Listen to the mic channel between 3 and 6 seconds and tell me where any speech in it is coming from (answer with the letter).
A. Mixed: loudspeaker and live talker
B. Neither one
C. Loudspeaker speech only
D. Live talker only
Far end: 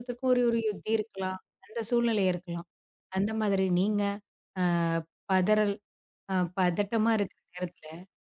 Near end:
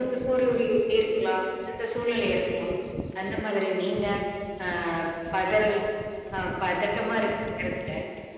C